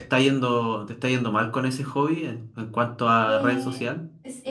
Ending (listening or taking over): taking over